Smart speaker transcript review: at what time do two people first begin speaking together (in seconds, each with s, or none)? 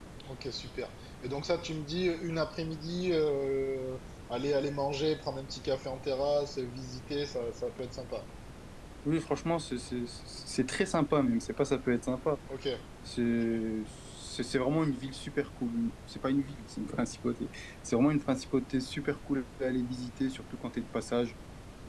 none